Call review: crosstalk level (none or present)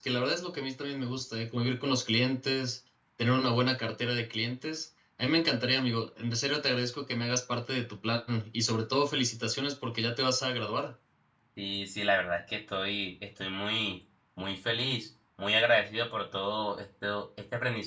none